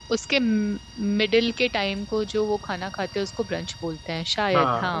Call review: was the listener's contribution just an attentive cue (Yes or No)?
No